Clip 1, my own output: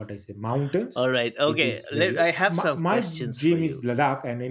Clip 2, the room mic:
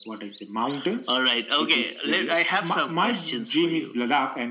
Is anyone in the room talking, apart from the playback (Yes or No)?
No